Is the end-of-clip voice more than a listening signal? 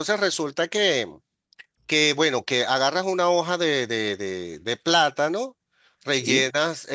No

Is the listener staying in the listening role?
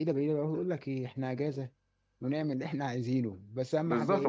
No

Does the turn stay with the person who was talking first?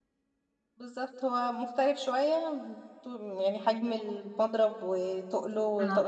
No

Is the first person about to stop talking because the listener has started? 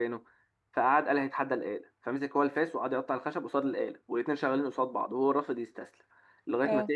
No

